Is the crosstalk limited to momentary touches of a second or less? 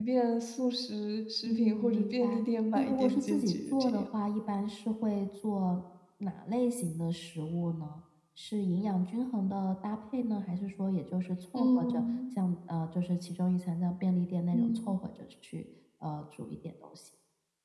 No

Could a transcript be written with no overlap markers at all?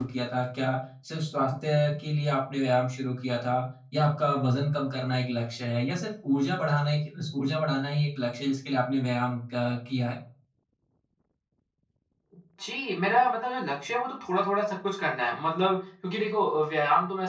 Yes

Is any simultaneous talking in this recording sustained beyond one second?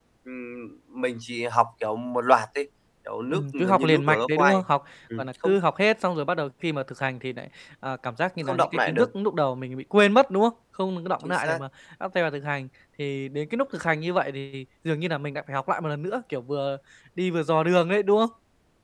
Yes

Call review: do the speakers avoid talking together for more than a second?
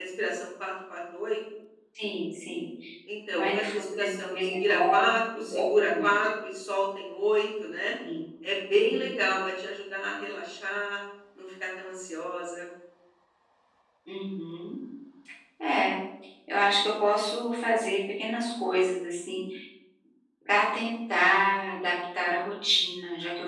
No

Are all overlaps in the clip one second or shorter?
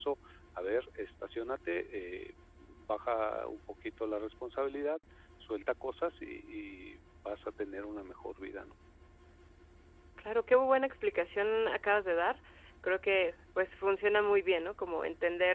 Yes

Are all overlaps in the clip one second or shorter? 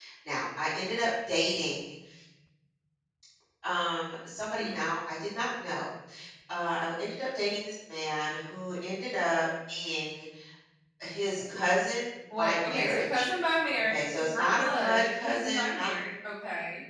No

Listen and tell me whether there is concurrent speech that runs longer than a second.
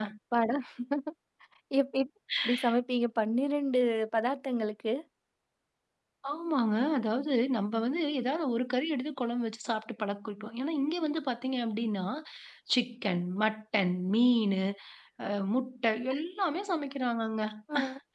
No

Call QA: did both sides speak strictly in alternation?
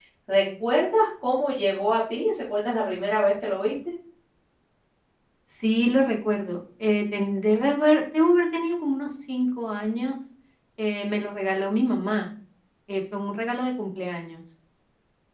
Yes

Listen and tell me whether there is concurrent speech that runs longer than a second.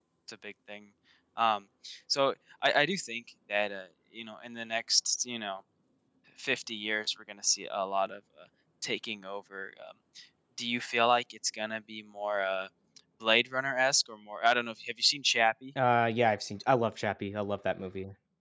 No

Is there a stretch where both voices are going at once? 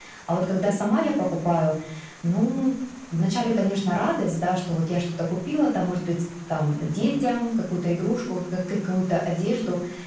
No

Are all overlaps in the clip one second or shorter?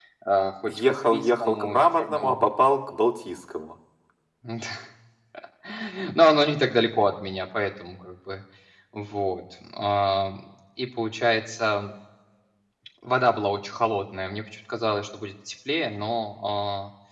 No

